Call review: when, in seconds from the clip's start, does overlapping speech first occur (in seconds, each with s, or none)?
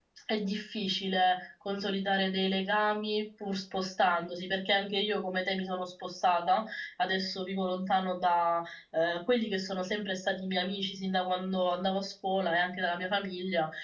none